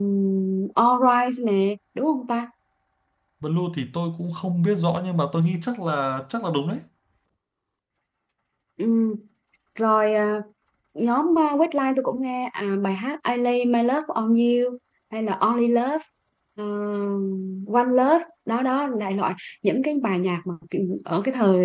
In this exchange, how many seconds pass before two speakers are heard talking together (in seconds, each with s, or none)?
none